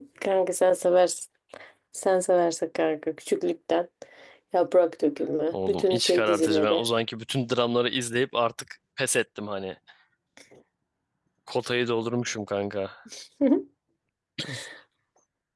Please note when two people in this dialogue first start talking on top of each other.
5 s

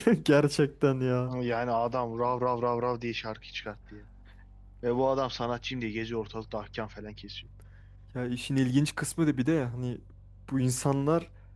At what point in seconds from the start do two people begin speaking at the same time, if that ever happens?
none

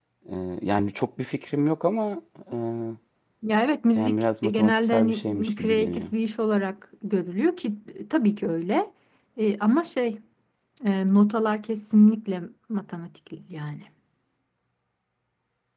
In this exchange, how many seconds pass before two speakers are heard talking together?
4 s

